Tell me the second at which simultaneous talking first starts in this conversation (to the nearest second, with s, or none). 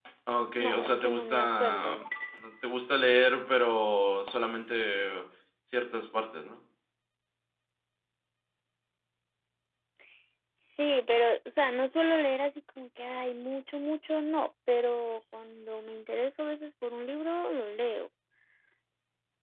1 s